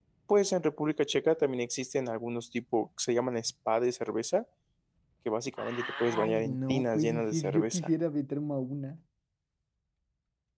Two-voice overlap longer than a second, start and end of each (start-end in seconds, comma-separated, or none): 5.6-7.9